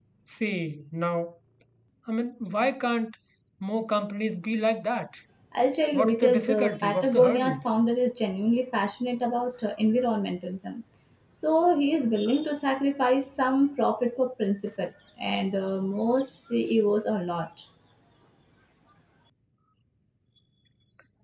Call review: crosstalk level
present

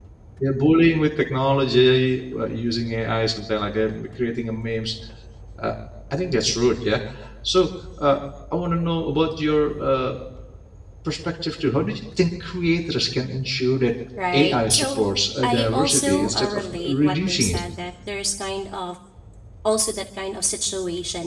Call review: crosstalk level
present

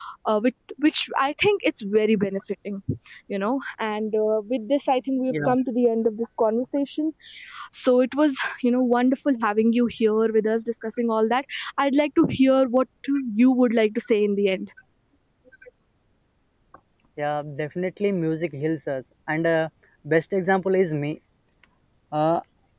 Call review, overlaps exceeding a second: none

